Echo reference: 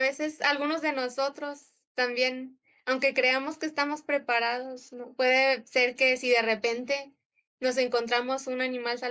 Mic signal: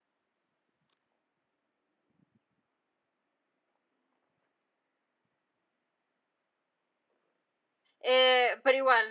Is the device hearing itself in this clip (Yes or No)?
No